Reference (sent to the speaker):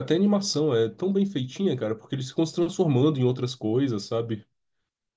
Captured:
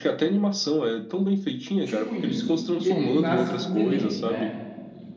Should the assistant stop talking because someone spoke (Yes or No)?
Yes